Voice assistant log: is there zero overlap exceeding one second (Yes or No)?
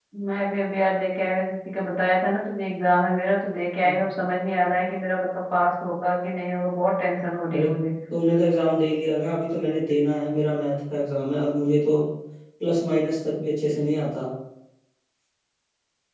Yes